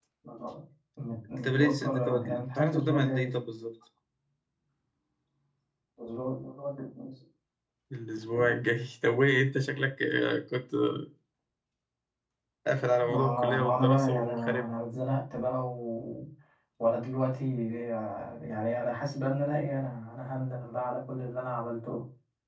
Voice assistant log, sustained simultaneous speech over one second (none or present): present